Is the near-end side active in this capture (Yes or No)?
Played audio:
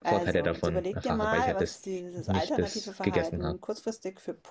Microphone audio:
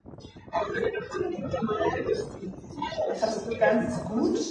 Yes